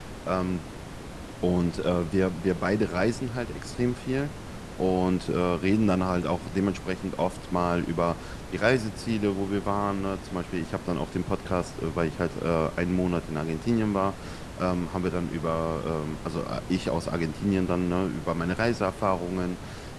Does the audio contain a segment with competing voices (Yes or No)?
No